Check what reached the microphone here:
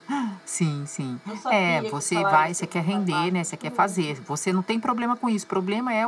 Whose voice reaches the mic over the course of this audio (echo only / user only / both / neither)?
both